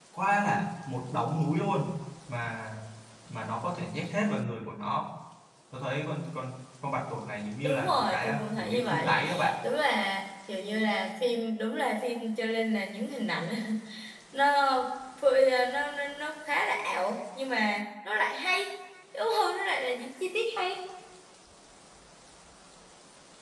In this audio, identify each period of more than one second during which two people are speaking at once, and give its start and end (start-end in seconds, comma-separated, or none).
7.6-9.2